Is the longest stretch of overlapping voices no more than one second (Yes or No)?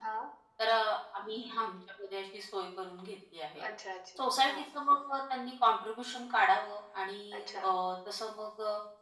Yes